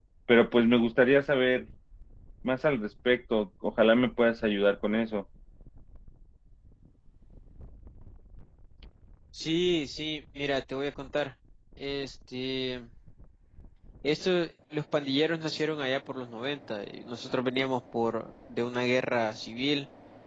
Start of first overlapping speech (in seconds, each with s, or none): none